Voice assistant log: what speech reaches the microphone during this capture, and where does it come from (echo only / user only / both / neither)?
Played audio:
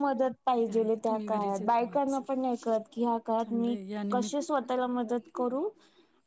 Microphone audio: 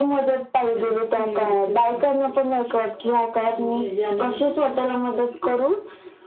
echo only